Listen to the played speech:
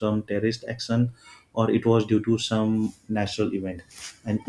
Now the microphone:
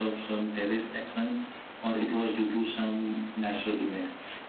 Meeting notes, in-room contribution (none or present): none